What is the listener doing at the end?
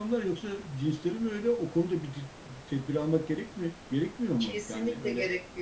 taking over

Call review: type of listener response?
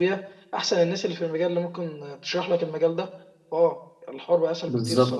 taking over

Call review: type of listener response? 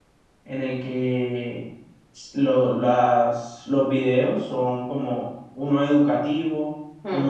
listening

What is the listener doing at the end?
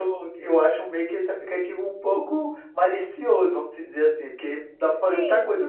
taking over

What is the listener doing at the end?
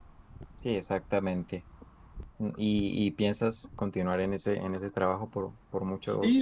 taking over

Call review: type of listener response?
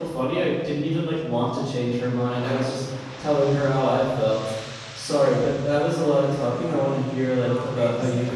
taking over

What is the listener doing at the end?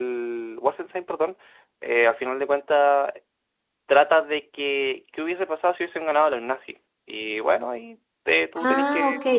taking over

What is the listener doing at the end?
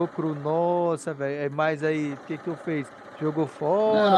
taking over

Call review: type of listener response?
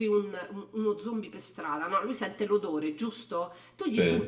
listening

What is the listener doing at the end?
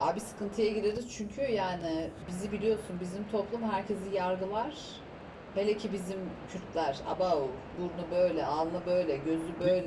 listening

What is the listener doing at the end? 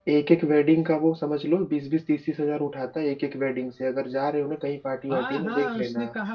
taking over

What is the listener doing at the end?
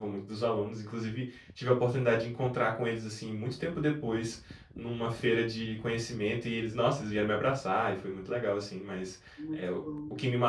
listening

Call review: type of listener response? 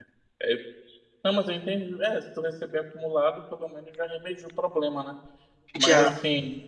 listening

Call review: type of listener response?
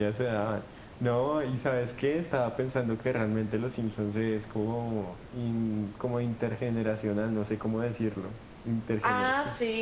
taking over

